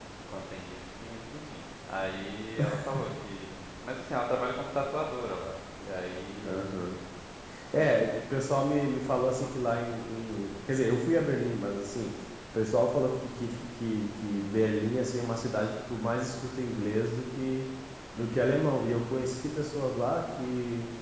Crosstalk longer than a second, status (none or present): none